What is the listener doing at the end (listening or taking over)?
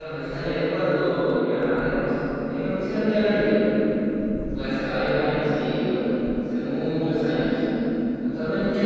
listening